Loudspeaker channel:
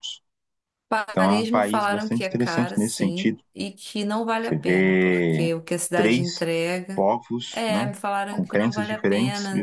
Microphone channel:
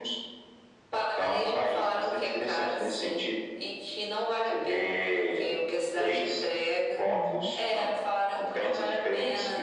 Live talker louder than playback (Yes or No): No